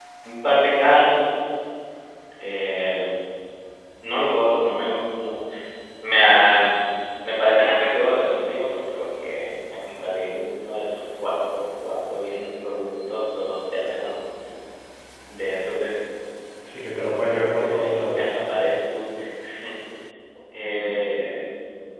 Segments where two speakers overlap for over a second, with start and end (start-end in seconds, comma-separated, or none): 16.7-18.2